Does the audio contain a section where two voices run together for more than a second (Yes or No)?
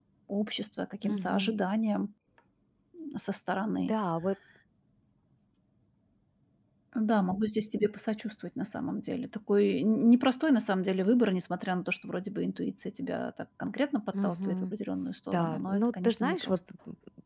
Yes